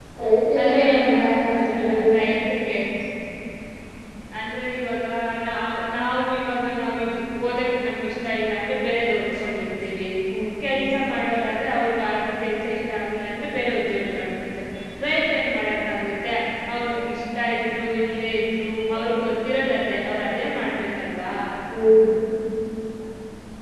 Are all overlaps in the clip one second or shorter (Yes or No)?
No